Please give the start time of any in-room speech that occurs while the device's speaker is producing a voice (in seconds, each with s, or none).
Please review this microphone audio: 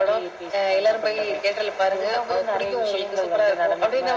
none